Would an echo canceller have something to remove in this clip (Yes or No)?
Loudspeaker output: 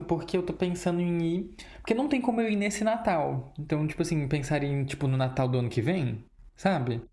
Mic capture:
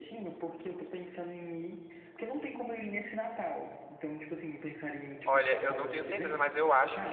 Yes